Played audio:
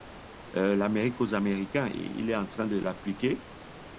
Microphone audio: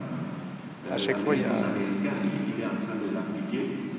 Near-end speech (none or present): present